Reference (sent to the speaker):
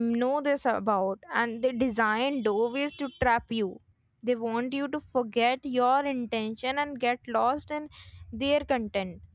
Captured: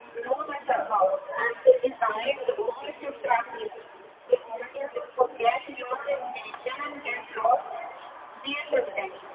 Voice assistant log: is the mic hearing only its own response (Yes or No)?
Yes